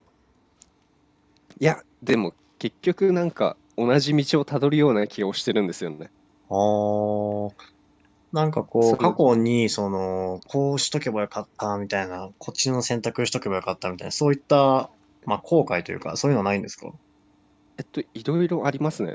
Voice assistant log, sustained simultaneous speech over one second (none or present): none